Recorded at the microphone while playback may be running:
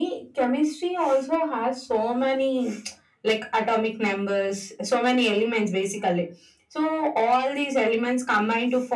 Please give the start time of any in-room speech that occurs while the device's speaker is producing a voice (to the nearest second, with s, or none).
none